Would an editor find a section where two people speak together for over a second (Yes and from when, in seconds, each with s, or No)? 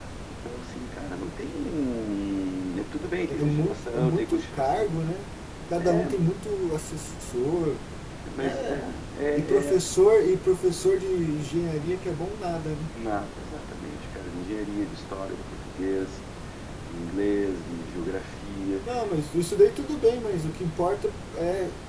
Yes, from 3.3 s